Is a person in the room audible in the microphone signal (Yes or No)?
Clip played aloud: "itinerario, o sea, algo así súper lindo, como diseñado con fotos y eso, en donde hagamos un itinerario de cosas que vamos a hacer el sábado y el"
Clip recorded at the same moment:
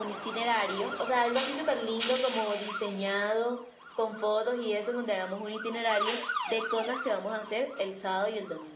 No